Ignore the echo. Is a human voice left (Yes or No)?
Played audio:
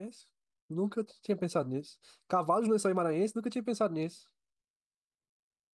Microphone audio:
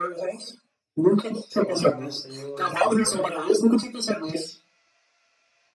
Yes